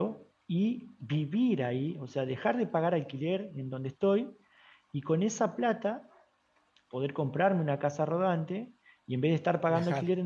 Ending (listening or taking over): listening